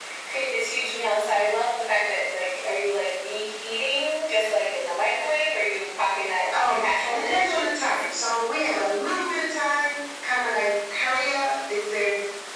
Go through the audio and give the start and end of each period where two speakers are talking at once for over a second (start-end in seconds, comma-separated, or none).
6.5-8.0